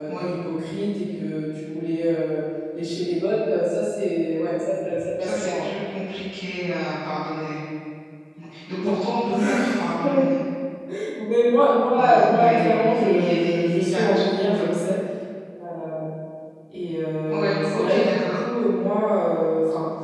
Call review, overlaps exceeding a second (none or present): present